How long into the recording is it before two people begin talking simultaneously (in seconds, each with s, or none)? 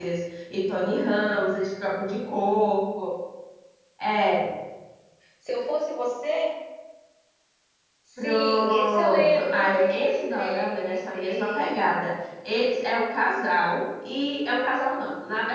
8.2 s